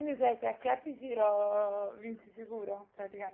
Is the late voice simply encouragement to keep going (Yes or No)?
No